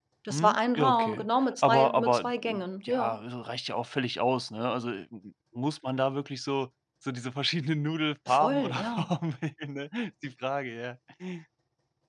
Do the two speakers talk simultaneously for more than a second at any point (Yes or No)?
Yes